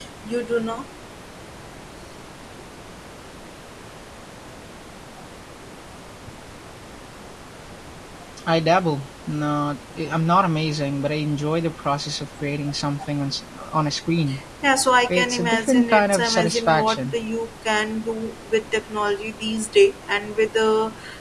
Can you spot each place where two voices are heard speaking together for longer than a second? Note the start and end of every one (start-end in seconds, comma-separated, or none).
15.1-17.1